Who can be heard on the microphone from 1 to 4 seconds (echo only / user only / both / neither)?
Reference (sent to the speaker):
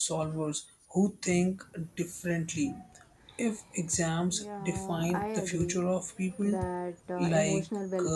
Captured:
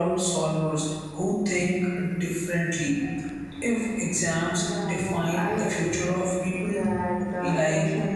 echo only